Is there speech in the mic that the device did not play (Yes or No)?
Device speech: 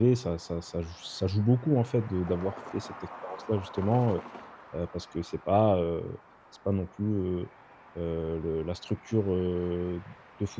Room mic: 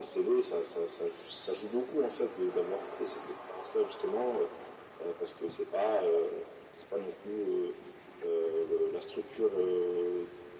No